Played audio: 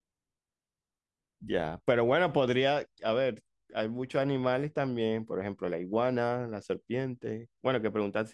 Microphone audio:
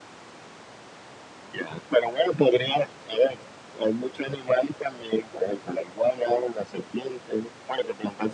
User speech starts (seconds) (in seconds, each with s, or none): none